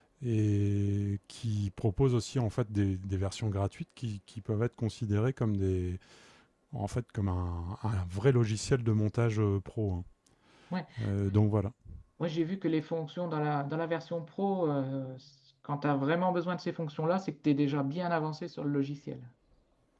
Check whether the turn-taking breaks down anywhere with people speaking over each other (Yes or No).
No